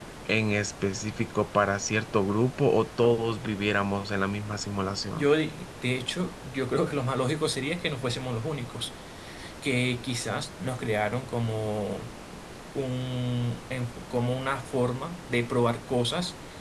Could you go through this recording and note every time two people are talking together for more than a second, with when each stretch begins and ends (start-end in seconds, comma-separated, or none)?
none